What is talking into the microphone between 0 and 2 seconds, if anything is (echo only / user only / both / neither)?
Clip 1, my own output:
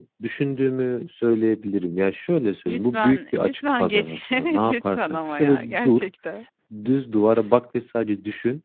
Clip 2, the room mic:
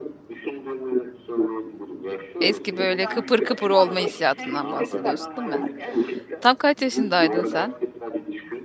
echo only